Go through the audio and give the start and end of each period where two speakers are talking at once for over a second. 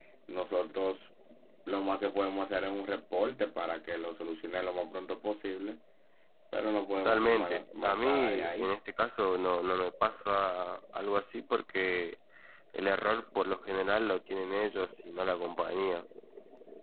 7.0-8.8

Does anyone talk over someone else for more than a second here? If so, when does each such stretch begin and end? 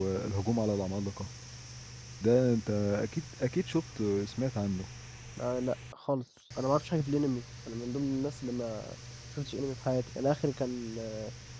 none

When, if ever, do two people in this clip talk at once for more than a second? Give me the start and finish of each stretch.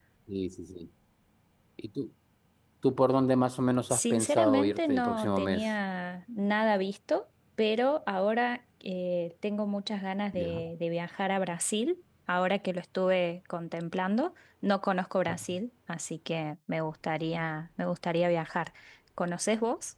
3.9-5.7

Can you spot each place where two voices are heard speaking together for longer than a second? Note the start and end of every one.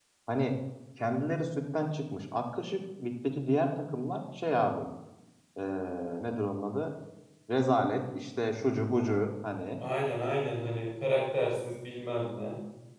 none

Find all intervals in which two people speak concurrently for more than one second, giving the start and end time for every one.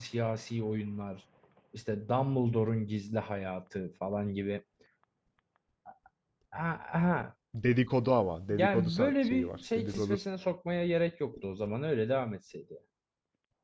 8.5-10.2

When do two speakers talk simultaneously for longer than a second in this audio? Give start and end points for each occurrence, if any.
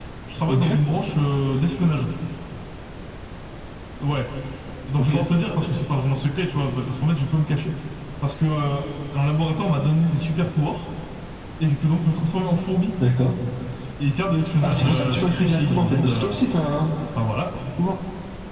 14.6-16.4

